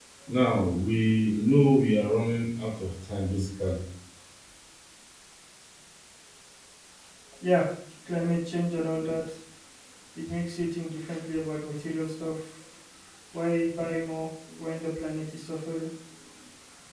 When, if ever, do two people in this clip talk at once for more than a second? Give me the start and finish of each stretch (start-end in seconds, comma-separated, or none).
none